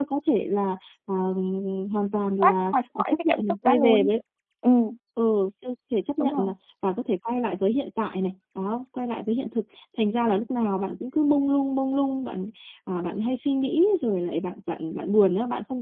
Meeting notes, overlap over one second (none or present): present